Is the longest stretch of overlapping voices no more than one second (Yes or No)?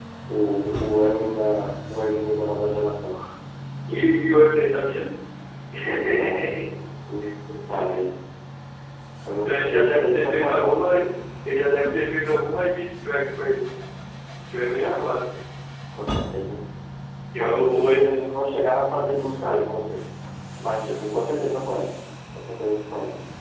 No